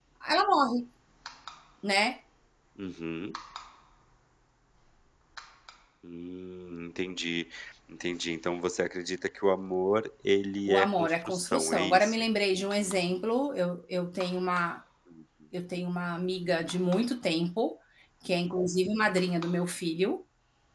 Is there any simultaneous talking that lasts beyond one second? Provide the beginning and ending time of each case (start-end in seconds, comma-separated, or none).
10.7-12.2